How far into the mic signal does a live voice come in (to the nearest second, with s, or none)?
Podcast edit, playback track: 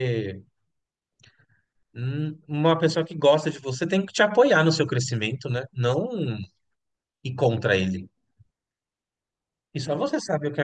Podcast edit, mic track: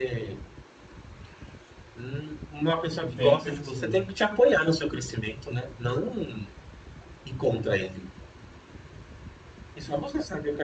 3 s